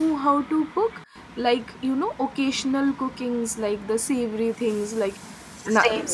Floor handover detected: No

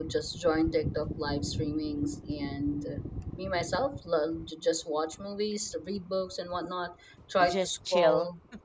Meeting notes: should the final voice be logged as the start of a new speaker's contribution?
No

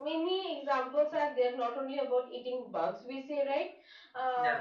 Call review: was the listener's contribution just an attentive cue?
Yes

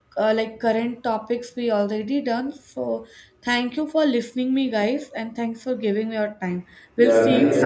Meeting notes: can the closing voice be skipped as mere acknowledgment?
No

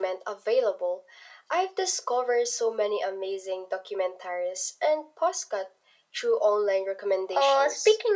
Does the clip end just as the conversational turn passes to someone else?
Yes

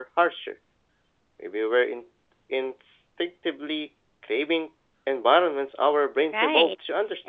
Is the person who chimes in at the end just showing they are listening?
No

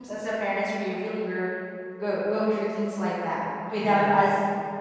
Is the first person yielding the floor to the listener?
No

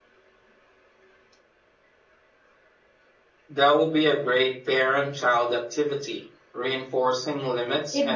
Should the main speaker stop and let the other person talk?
Yes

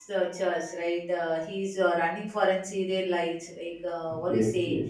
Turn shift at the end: No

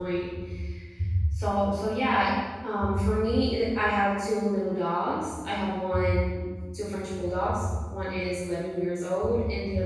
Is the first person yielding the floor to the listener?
No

